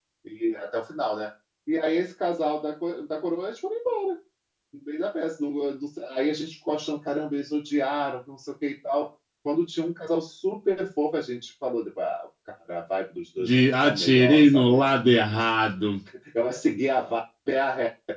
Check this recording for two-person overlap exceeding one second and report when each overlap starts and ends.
13.4-14.8

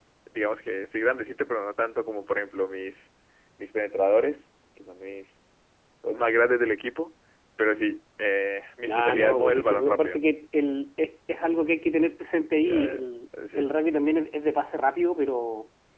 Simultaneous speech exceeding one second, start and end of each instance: 8.9-10.2

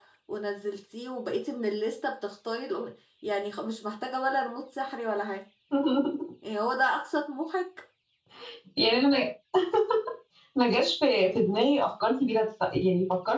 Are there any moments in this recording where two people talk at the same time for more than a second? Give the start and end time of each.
none

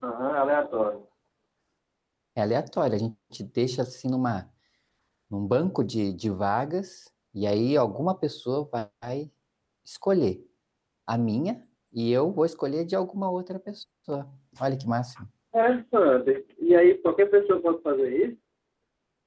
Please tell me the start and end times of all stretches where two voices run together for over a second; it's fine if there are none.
none

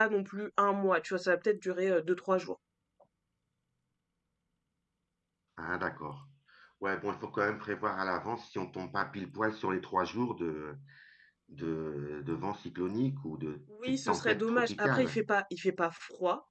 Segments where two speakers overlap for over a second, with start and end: 13.8-15.2

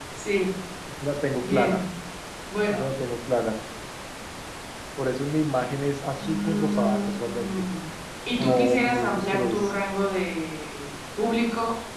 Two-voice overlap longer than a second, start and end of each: 6.1-7.5, 8.4-9.7

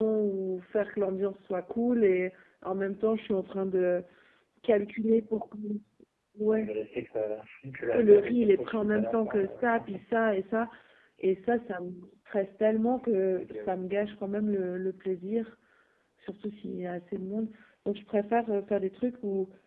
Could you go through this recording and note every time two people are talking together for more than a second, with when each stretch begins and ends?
7.9-9.8

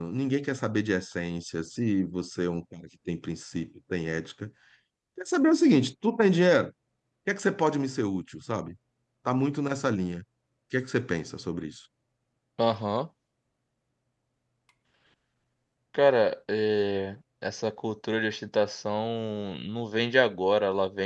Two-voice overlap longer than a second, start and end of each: none

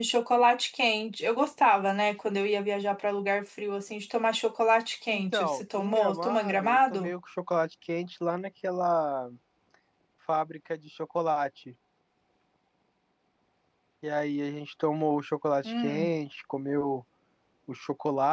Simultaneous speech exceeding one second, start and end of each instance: 5.1-7.1

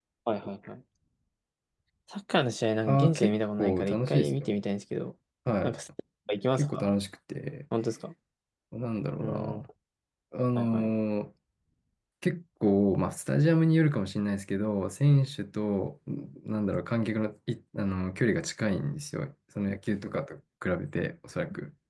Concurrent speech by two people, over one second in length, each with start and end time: 2.9-4.6

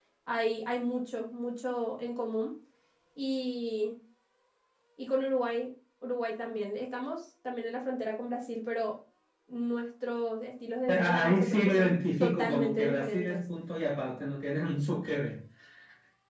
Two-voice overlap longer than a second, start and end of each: 10.9-13.4

